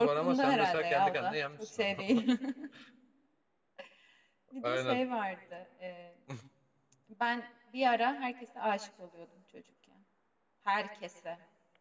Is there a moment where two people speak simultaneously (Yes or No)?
Yes